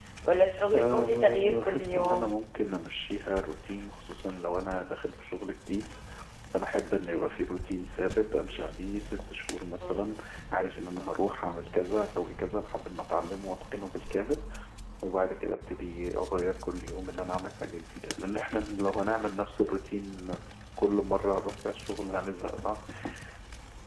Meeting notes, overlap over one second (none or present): present